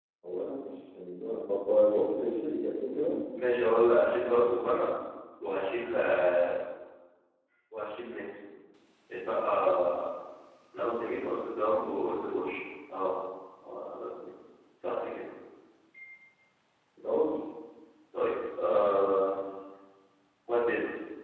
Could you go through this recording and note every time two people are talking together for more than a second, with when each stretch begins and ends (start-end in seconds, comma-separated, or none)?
none